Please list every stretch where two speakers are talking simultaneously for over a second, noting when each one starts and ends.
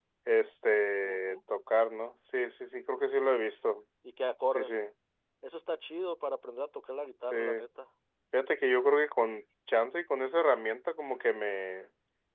none

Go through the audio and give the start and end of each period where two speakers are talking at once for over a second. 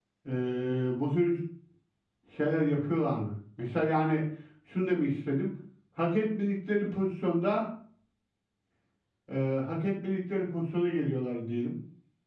none

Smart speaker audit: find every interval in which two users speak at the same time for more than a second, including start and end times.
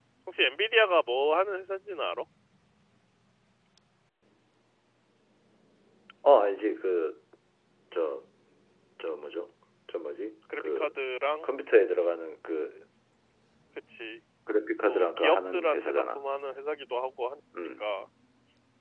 14.9-16.2

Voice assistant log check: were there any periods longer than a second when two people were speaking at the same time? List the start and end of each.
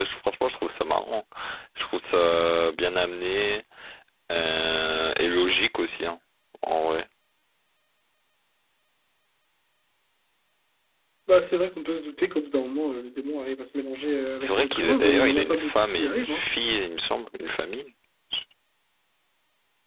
14.4-16.4

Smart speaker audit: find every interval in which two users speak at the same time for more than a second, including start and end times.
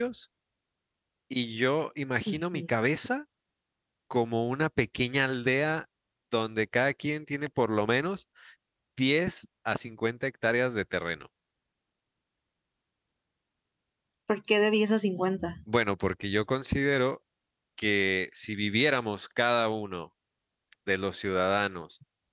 none

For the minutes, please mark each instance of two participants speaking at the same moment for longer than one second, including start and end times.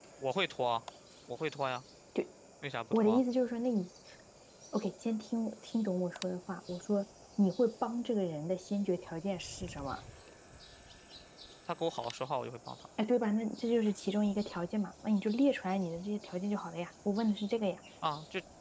none

